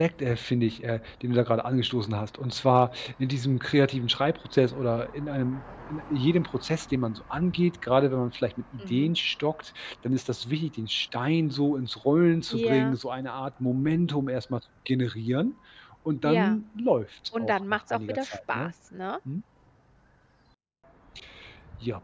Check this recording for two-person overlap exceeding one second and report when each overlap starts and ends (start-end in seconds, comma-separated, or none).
17.4-18.7